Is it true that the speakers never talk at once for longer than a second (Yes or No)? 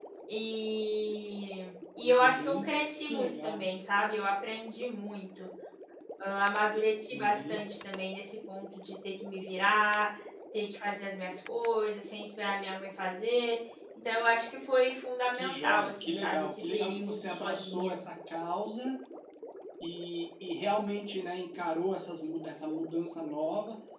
No